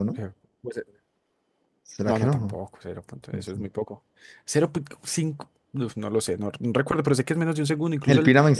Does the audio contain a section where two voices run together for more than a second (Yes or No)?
No